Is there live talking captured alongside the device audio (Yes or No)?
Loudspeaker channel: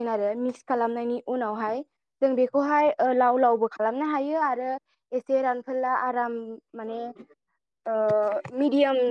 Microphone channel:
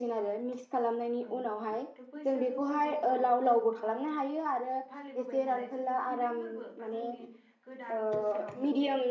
Yes